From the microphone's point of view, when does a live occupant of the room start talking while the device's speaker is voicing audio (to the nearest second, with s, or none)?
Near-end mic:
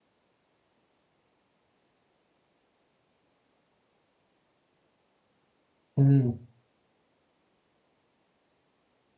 6 s